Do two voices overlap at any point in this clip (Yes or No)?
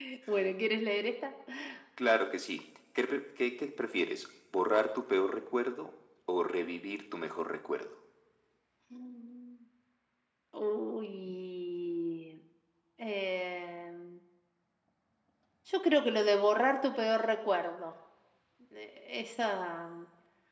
No